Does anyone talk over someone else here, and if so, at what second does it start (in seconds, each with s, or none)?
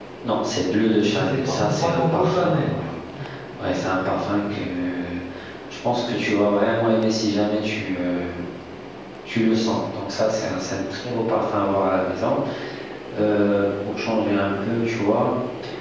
1.2 s